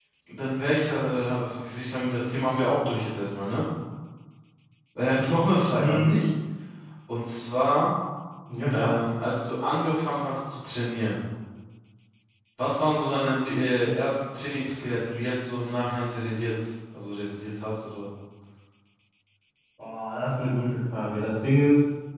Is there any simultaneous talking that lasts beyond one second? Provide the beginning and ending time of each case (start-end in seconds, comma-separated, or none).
none